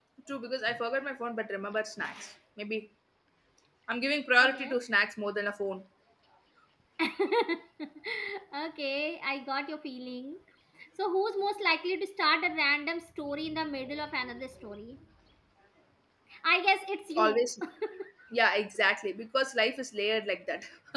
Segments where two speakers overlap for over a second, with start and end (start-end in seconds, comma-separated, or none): none